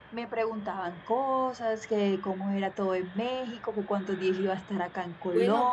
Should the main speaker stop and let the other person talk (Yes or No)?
Yes